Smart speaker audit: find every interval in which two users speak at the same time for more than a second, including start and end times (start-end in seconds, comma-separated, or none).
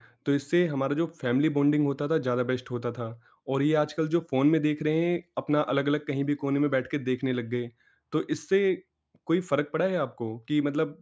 none